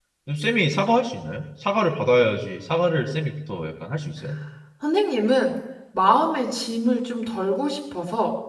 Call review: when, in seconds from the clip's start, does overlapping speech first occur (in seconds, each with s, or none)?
none